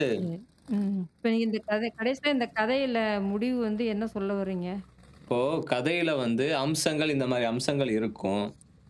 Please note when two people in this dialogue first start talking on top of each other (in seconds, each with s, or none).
none